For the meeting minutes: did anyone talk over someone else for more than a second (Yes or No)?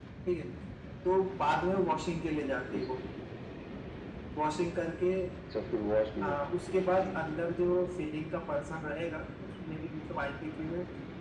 No